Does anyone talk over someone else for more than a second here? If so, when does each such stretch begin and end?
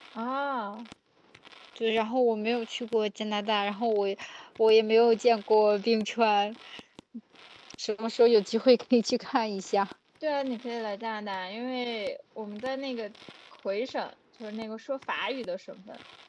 none

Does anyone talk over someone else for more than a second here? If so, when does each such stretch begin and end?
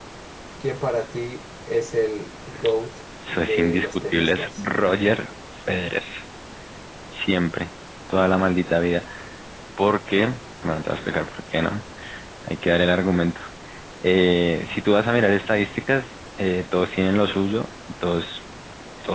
3.3-4.6

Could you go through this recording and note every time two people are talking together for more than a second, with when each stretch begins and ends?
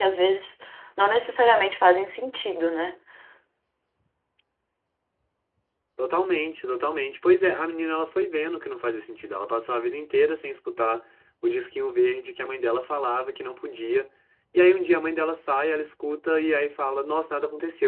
none

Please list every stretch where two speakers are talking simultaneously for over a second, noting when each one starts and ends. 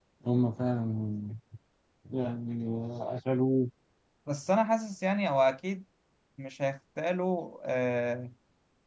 none

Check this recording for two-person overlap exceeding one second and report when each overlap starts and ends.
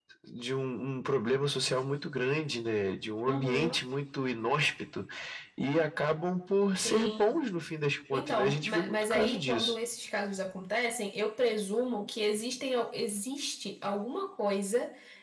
8.1-9.7

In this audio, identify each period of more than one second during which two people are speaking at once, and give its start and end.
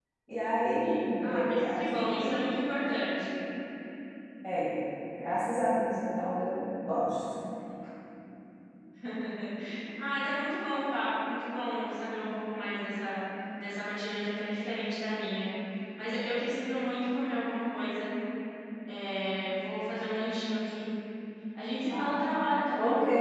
0.8-2.4

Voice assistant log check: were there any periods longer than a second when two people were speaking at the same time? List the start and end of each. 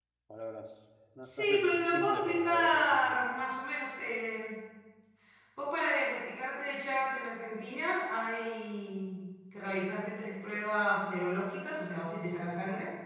1.2-3.2

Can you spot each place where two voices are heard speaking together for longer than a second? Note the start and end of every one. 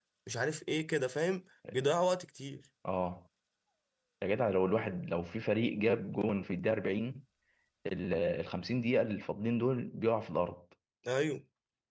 none

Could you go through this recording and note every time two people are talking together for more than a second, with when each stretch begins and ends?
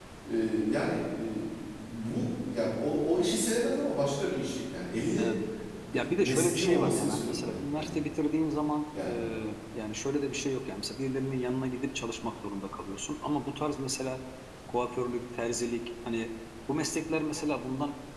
5.9-8.0

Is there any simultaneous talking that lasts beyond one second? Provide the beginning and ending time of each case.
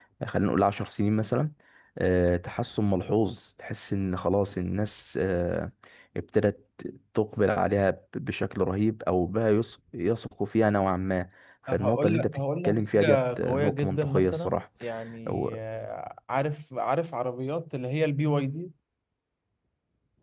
11.7-14.6

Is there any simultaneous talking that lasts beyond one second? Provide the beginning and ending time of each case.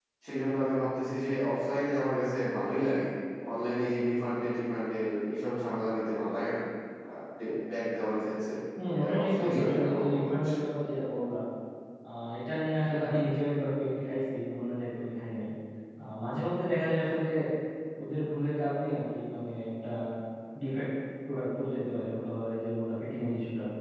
8.9-10.5

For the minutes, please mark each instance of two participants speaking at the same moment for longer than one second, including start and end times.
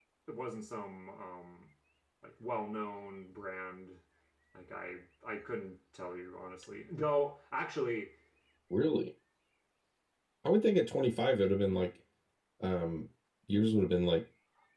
none

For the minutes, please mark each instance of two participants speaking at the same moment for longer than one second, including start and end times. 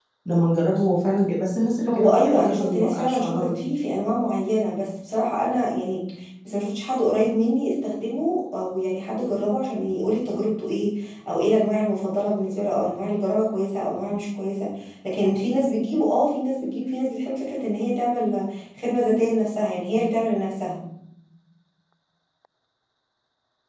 1.9-3.6

